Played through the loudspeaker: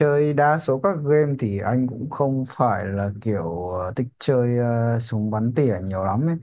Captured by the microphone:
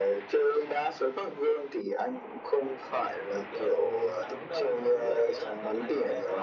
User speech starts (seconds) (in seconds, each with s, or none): 3.5 s